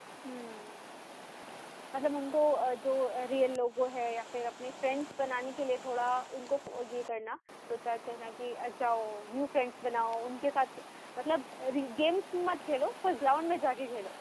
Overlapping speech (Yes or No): No